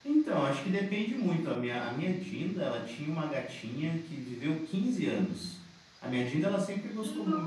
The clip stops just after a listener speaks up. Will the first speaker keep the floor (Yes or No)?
Yes